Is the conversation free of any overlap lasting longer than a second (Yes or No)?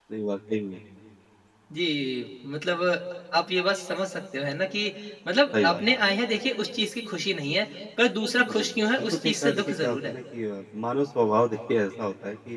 No